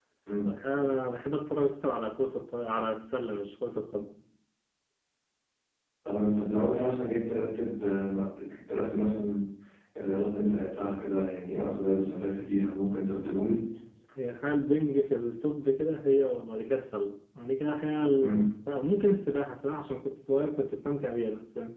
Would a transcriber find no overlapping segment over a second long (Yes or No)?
Yes